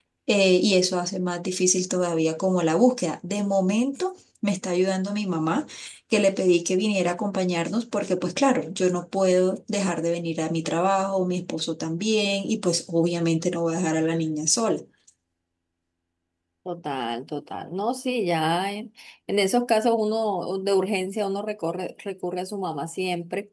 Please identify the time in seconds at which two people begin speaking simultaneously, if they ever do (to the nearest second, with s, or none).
none